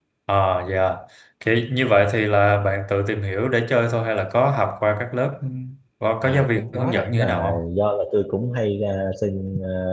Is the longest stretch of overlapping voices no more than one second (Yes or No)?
No